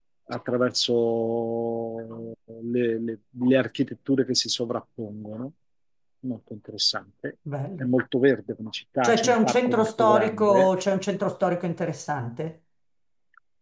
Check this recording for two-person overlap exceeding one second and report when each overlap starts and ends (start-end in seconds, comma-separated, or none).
9.0-10.7